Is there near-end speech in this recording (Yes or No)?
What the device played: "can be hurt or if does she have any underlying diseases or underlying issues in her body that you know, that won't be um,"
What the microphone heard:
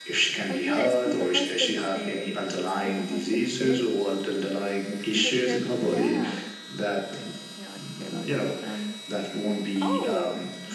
Yes